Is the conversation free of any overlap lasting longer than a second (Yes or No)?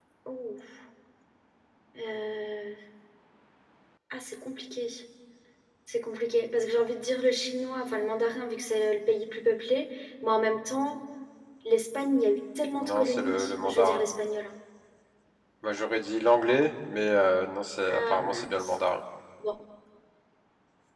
No